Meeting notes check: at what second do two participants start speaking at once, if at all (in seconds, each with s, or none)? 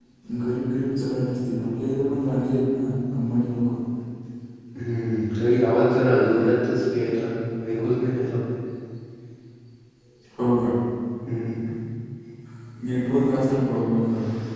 none